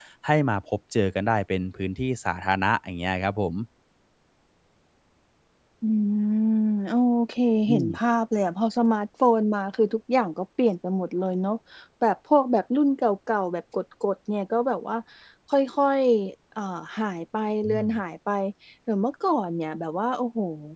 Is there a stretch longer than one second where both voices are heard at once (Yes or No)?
No